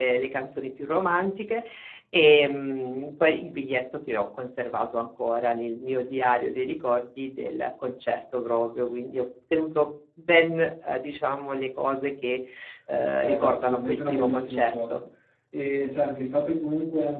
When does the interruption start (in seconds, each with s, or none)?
13.2 s